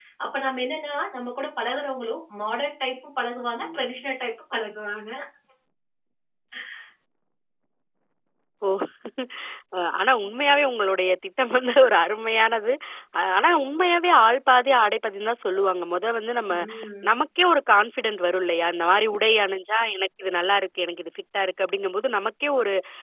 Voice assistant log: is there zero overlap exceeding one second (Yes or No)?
Yes